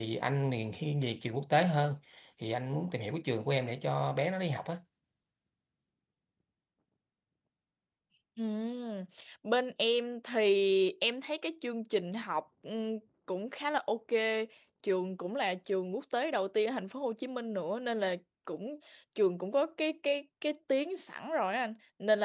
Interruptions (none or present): none